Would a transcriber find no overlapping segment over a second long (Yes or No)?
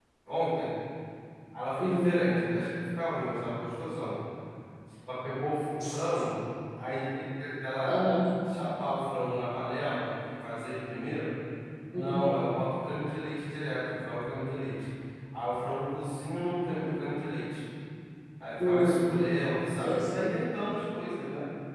Yes